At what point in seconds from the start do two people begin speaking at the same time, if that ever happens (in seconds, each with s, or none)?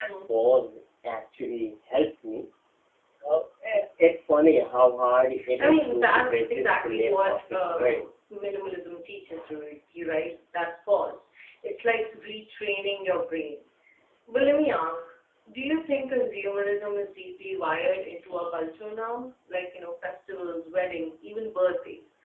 5.6 s